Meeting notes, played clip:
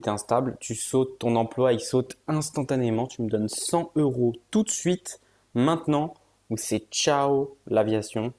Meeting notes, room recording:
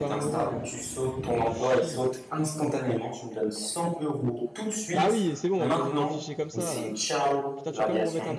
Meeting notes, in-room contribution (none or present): present